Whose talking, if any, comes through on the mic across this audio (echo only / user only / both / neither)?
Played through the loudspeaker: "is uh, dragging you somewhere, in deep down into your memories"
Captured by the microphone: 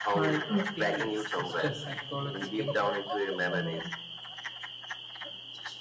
both